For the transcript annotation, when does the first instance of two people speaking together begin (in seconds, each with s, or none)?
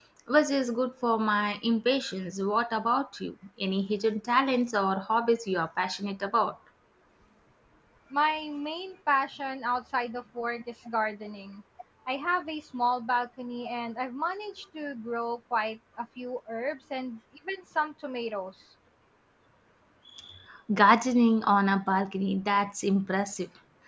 none